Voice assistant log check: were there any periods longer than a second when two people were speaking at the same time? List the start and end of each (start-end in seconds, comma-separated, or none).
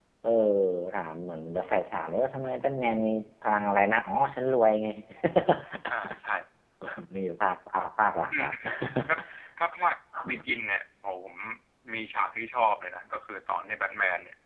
none